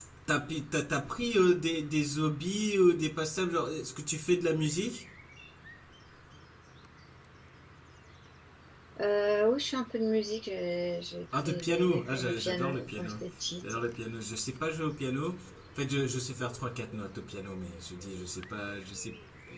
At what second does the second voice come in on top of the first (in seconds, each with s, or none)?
11.4 s